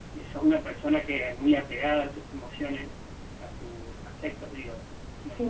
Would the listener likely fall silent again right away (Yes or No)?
No